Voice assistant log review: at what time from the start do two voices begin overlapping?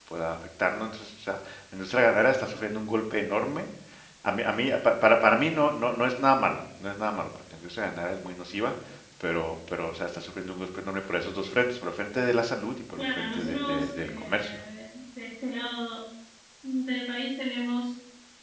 13.0 s

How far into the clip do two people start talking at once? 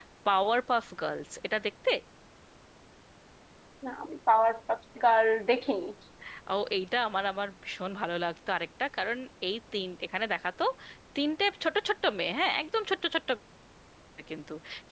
none

